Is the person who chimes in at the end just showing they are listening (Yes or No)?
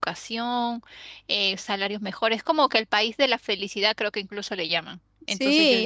No